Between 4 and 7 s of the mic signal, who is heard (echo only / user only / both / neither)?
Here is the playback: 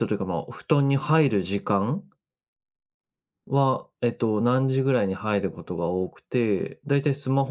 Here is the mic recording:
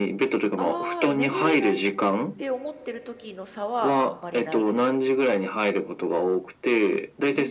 both